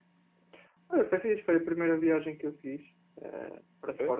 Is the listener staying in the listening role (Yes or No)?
Yes